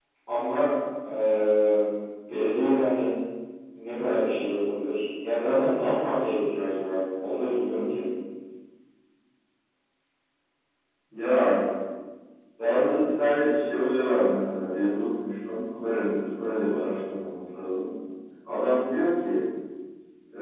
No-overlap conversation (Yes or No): Yes